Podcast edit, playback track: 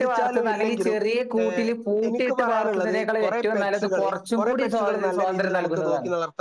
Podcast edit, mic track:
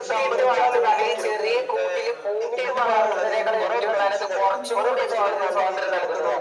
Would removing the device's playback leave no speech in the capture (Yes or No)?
No